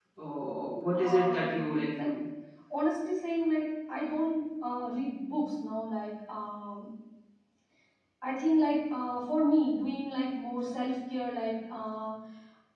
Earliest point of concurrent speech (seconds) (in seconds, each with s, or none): 0.9 s